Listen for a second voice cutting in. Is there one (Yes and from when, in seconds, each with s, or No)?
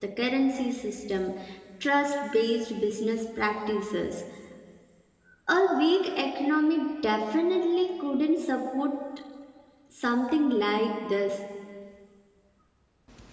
No